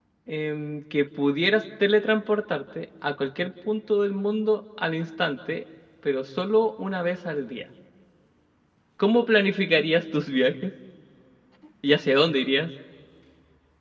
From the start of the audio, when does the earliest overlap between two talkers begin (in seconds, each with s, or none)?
none